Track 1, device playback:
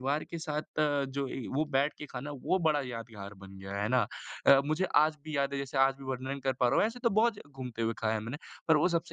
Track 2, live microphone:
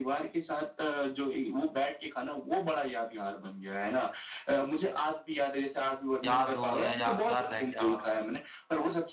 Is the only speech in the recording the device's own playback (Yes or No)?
No